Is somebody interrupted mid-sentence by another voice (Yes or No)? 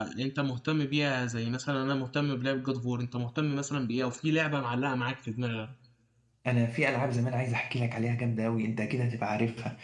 No